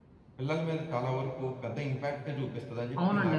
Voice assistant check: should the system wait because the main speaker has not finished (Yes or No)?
No